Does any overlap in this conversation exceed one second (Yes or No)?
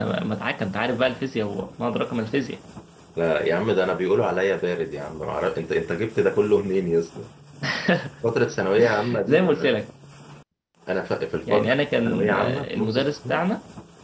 Yes